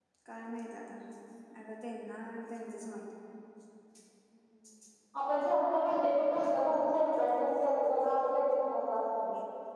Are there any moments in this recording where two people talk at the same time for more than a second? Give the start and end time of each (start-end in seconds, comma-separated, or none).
none